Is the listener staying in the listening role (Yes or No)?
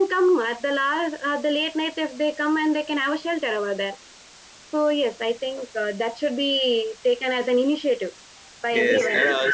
No